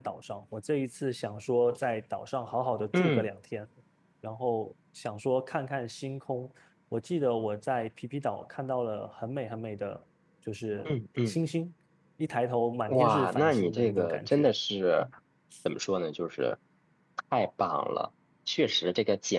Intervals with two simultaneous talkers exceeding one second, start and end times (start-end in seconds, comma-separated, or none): 12.9-14.5